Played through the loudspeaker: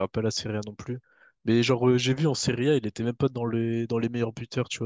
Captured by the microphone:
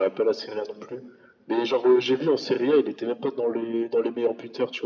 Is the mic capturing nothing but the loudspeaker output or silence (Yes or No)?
Yes